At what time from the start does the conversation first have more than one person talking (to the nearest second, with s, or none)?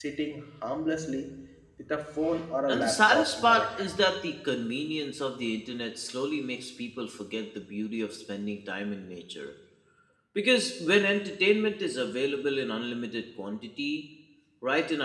3 s